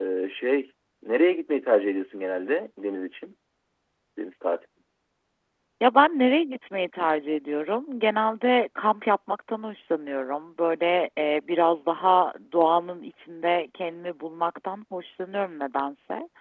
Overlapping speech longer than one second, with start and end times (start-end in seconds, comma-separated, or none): none